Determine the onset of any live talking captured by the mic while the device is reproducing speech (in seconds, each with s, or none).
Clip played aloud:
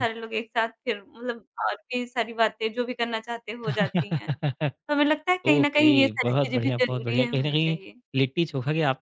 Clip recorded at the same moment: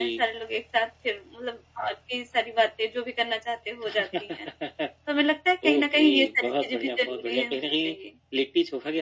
none